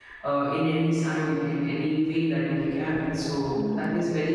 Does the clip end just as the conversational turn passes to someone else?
No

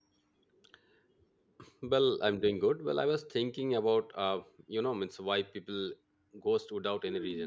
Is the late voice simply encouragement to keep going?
No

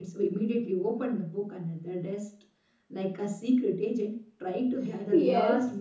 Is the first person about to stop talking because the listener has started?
Yes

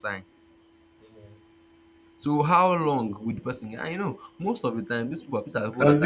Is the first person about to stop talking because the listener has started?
Yes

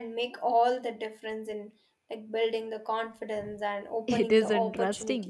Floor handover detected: Yes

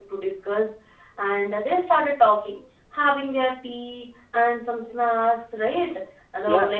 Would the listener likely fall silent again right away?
Yes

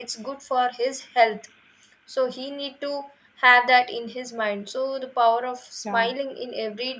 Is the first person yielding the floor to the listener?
No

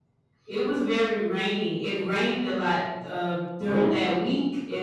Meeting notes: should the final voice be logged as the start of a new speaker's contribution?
No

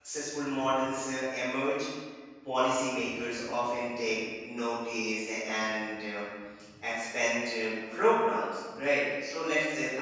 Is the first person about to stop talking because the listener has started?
No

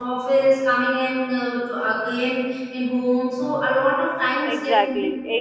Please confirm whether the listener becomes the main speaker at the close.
Yes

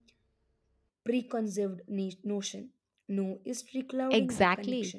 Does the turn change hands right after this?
Yes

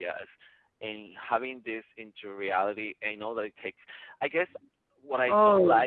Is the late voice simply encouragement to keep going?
Yes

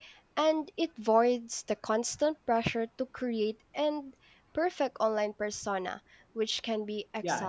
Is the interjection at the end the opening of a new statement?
Yes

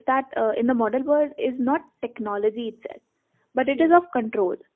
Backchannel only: Yes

